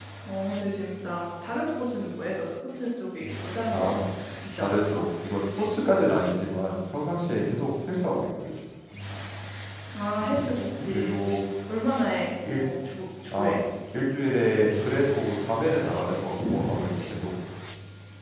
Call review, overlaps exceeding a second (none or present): none